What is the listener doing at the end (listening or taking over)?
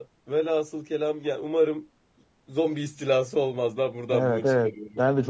taking over